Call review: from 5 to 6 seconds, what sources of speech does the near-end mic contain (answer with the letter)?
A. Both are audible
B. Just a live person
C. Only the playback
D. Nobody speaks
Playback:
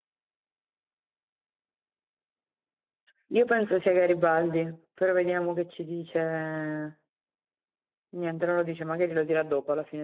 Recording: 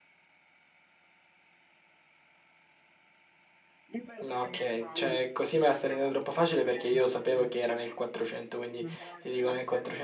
A